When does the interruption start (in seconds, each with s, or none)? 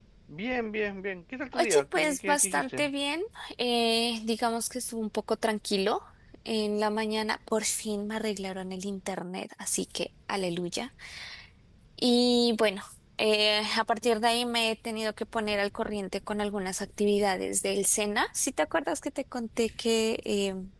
1.5 s